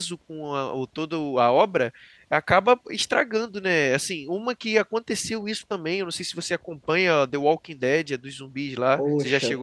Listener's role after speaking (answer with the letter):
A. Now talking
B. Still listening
A